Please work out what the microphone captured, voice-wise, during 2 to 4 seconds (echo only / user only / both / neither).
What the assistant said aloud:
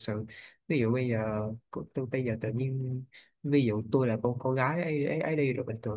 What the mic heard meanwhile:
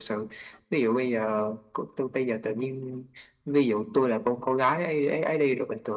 echo only